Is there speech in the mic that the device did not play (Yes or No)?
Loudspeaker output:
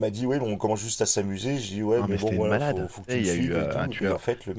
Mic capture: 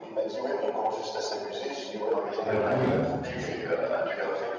Yes